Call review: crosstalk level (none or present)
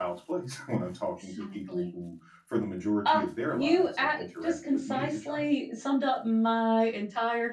present